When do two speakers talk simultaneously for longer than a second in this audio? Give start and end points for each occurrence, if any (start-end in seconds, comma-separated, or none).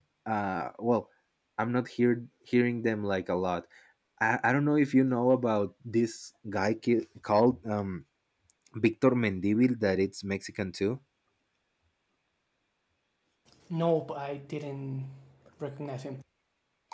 none